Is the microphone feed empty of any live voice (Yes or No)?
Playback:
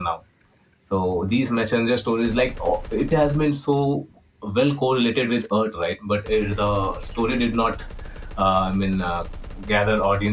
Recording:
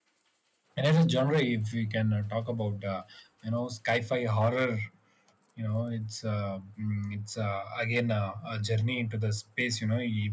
No